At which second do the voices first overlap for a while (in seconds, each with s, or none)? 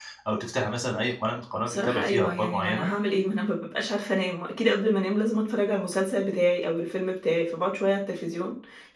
1.7 s